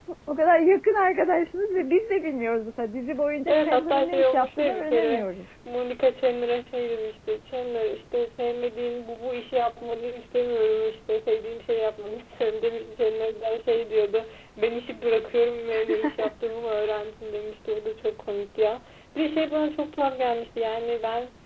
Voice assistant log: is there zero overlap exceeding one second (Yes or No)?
No